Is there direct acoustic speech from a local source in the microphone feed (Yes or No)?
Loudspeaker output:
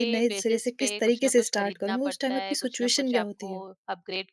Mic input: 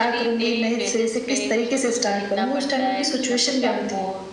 No